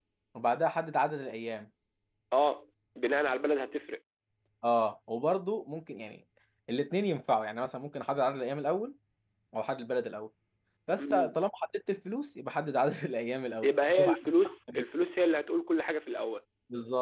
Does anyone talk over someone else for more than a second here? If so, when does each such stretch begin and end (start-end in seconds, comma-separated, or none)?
13.6-14.8